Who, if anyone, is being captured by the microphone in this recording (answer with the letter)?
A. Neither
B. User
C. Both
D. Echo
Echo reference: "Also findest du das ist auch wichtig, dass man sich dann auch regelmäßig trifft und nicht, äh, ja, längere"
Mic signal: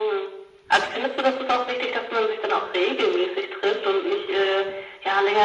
D